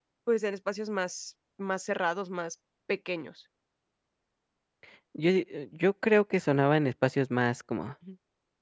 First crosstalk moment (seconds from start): none

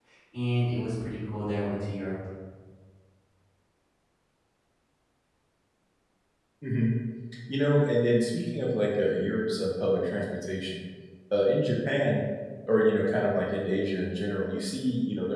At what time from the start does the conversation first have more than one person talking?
none

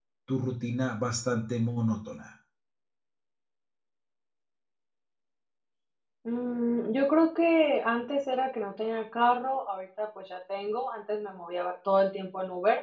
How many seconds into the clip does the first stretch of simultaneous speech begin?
none

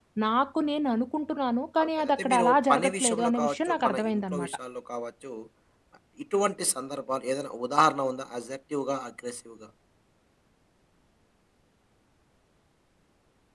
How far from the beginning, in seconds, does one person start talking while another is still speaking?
1.8 s

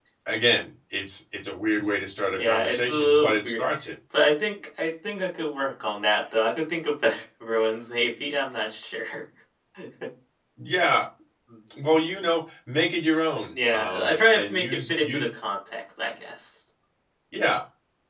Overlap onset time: 2.4 s

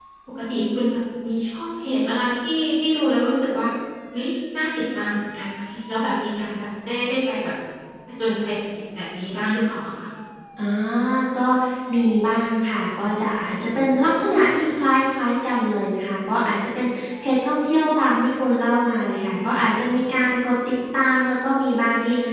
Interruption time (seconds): none

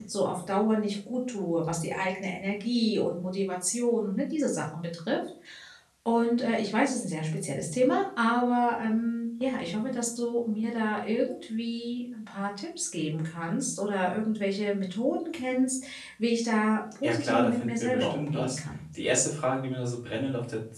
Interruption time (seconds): 17.0 s

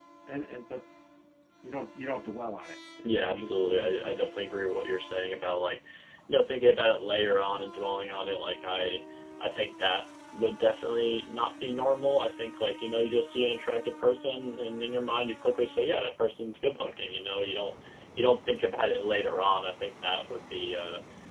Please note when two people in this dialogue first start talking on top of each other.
3.0 s

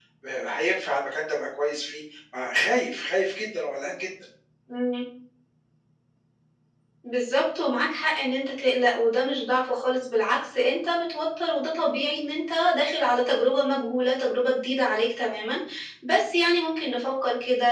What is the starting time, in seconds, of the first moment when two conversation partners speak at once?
none

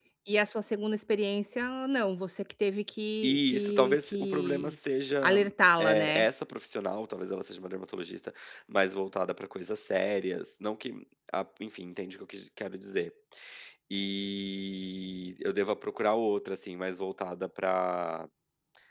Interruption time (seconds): 3.2 s

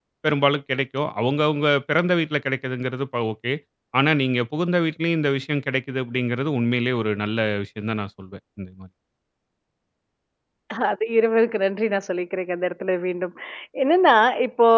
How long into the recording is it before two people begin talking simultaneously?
none

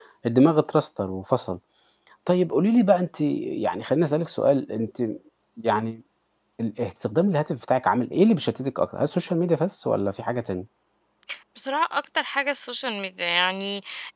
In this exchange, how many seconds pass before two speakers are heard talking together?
none

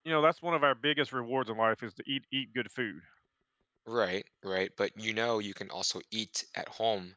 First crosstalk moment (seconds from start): none

